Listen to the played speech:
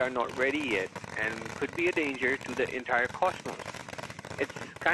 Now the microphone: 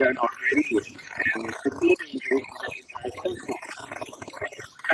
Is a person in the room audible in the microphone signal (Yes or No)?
No